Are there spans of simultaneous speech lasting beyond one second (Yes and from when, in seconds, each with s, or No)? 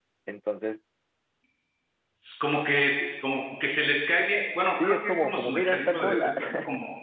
Yes, from 4.8 s